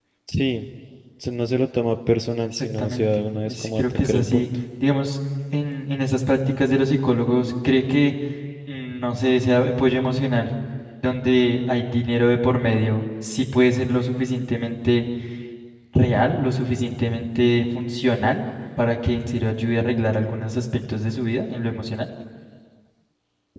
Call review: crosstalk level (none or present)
present